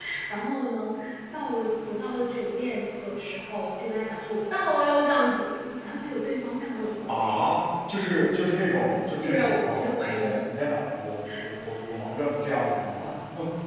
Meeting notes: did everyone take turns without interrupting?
No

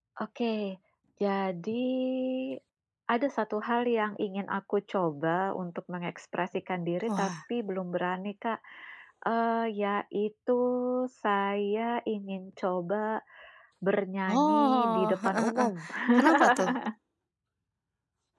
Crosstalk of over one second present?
Yes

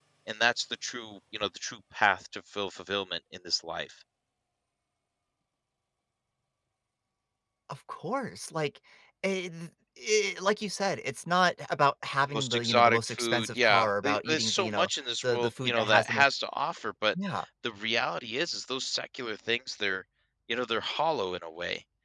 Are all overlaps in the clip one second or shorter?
No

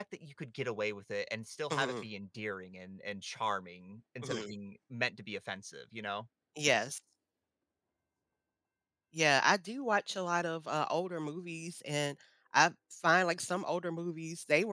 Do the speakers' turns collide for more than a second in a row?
No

